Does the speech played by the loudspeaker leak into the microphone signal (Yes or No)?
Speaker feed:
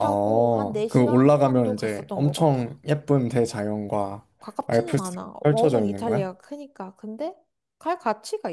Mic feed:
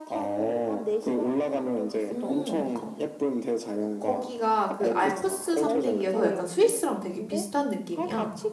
Yes